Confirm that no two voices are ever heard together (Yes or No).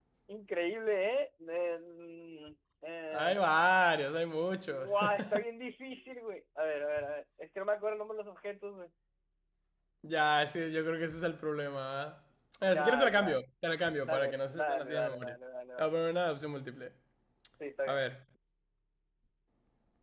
No